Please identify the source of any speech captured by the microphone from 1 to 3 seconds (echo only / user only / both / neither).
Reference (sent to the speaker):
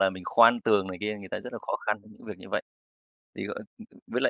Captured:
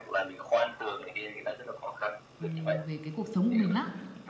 both